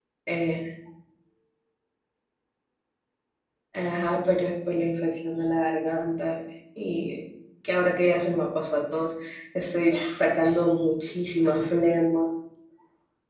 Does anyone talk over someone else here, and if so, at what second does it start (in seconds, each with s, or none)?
none